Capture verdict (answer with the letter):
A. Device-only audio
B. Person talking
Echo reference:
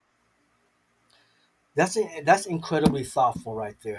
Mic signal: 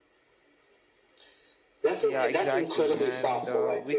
B